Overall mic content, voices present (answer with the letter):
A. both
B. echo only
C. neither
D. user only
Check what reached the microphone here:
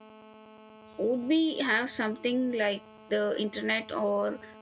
D